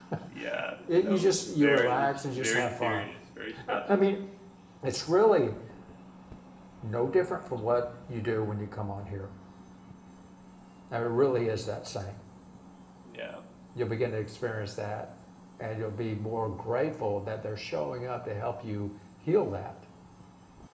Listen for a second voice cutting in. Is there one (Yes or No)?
Yes